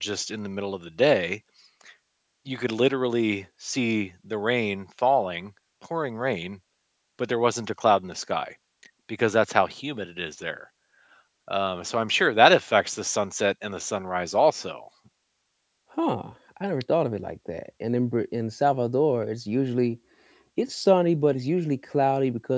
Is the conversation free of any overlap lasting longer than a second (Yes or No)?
Yes